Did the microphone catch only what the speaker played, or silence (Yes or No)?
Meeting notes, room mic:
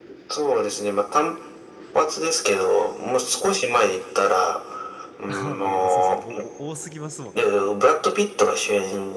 No